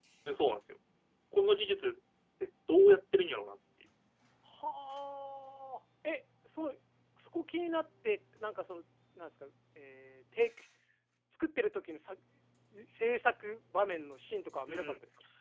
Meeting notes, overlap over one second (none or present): none